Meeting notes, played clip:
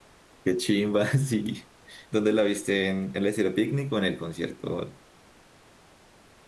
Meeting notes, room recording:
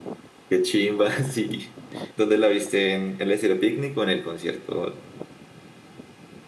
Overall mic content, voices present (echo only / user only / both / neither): echo only